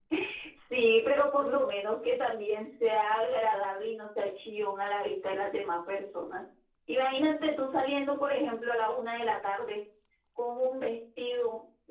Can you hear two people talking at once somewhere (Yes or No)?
No